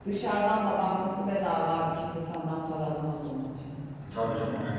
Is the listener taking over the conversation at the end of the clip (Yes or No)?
Yes